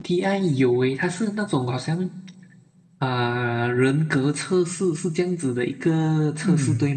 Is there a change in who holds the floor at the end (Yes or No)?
Yes